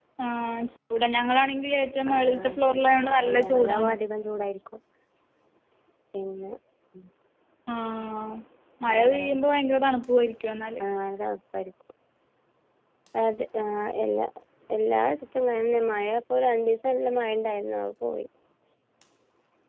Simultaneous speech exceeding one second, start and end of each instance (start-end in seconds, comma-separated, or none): 2.1-3.9